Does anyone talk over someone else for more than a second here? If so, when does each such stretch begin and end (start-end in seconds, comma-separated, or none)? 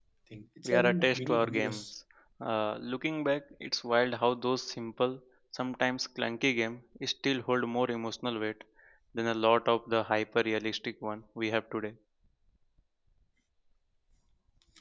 0.7-1.9